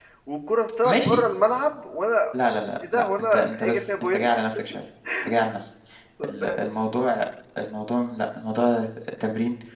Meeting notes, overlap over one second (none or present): present